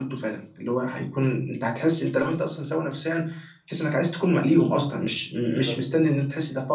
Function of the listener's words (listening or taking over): listening